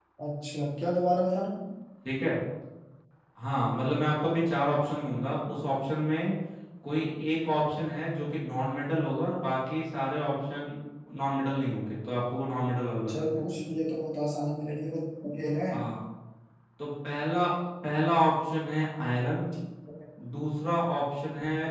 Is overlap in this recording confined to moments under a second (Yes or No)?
Yes